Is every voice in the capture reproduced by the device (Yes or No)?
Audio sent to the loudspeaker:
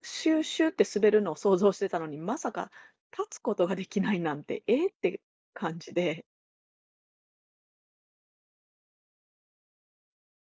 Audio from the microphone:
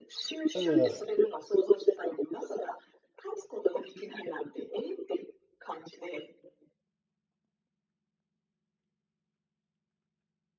No